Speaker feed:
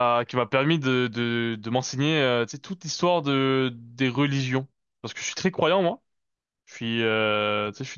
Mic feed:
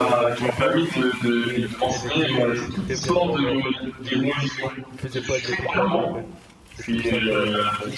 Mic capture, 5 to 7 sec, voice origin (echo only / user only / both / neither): both